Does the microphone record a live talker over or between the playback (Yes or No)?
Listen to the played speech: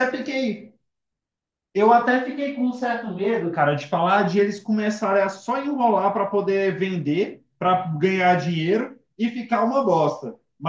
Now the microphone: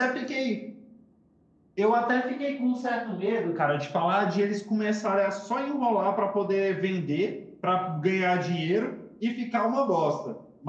No